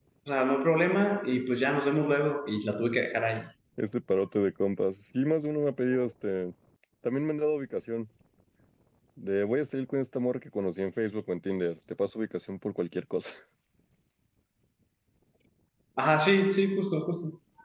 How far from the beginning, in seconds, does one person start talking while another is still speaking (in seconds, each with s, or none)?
none